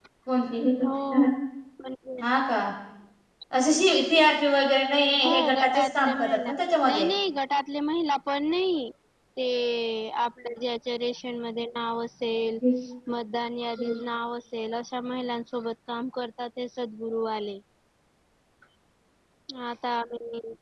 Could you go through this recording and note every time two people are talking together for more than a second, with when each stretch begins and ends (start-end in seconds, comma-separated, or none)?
5.2-6.5